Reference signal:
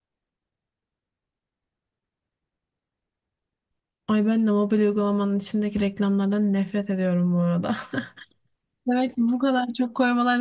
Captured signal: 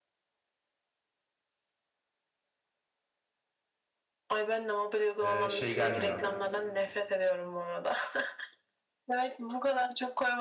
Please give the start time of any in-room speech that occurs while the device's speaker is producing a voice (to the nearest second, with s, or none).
5 s